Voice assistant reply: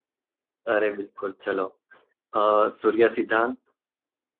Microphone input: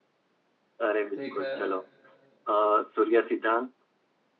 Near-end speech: present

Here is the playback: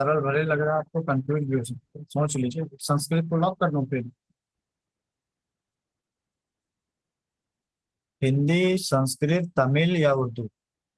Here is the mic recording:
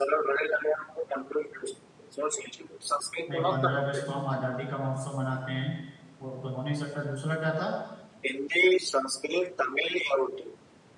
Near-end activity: present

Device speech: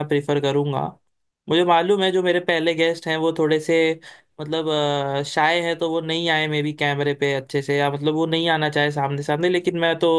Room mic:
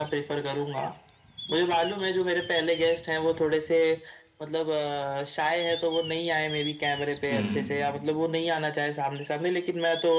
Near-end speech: present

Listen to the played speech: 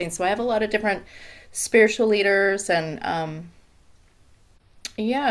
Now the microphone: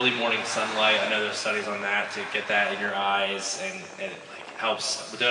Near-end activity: present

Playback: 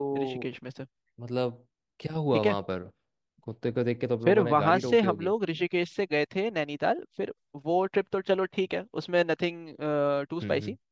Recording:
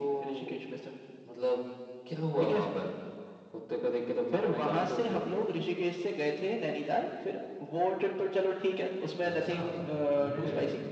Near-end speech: present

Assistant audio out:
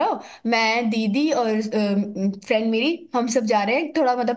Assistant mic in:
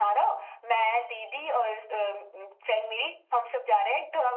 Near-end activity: none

